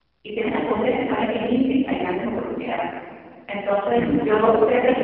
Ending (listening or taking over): listening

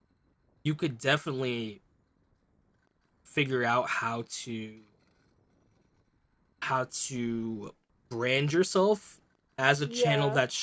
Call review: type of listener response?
listening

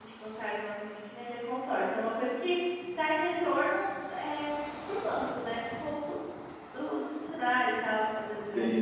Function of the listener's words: taking over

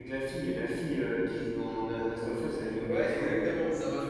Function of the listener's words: taking over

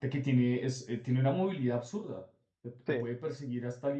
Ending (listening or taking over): listening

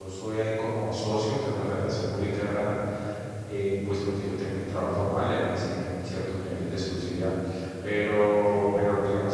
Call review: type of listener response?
listening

